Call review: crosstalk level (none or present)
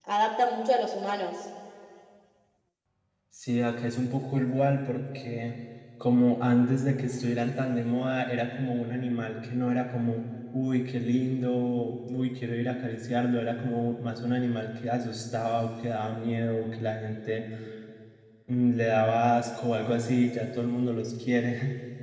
none